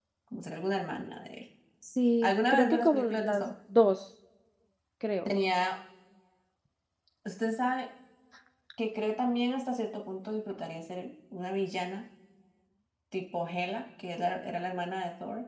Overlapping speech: Yes, from 2.2 s

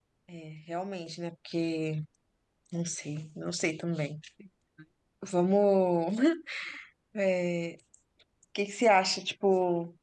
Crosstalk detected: No

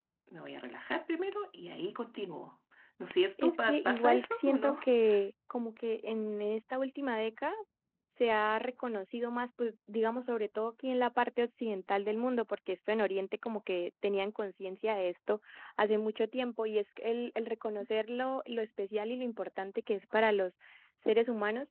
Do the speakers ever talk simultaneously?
Yes, from 3.4 s

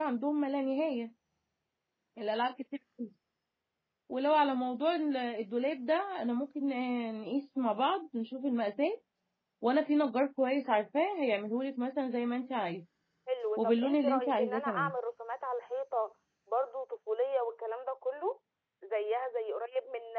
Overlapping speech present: Yes, from 13.6 s

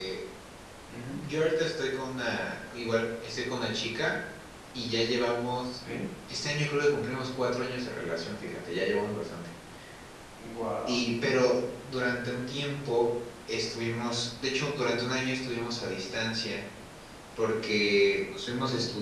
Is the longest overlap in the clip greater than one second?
No

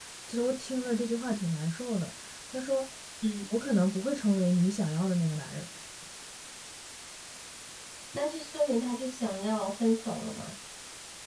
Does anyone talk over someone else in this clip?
No

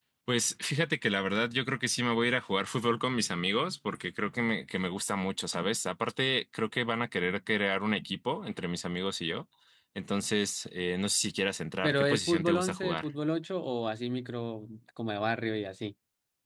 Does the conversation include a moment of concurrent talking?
Yes, from 11.8 s

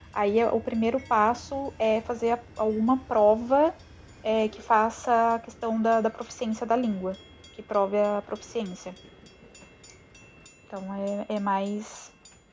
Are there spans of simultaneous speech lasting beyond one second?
No

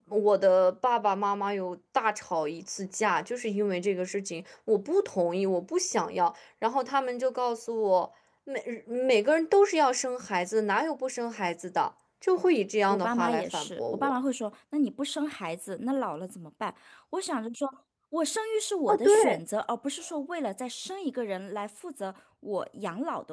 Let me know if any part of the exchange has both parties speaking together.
Yes, from 12.9 s

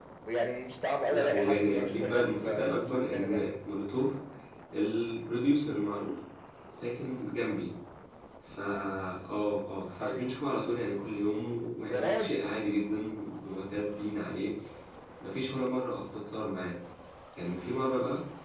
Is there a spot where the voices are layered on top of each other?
Yes, from 1.1 s

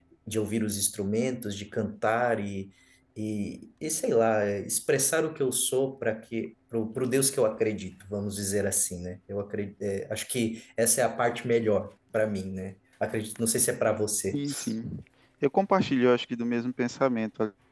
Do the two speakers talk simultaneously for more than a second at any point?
No

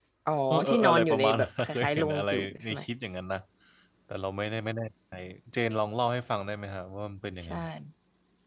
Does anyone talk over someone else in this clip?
Yes, from 0.7 s

